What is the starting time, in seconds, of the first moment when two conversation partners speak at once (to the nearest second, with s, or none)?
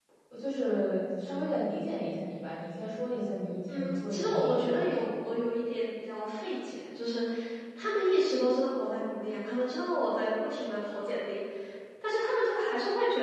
4 s